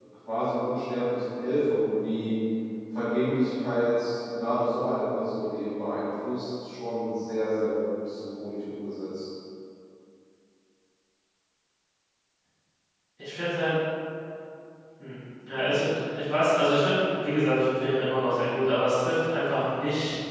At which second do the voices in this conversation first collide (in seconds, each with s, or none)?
none